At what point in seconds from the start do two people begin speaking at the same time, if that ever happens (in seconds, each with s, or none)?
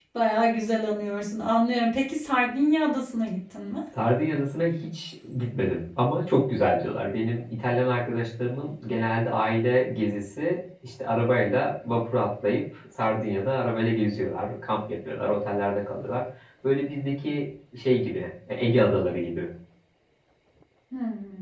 none